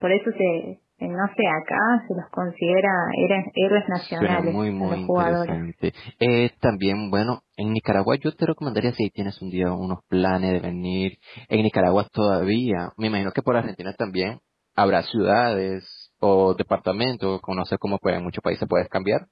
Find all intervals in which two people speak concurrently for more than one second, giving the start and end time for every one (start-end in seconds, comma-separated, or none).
4.0-5.7